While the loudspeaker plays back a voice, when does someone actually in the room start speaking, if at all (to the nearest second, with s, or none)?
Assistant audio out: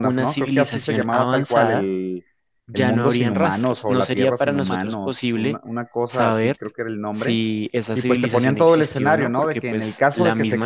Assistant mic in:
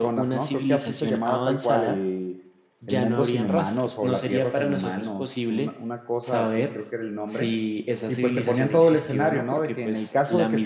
none